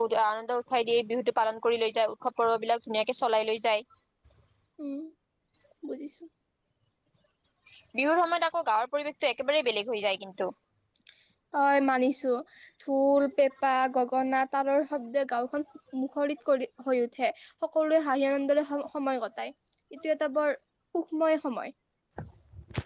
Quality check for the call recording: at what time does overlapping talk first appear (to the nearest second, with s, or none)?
none